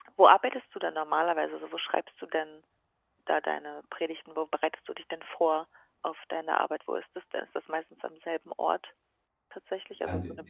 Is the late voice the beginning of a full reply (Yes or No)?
Yes